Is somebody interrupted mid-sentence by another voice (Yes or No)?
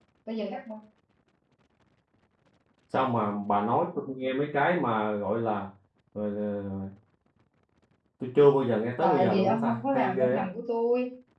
Yes